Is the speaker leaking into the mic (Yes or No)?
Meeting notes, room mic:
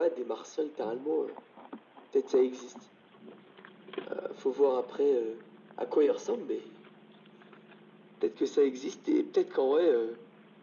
Yes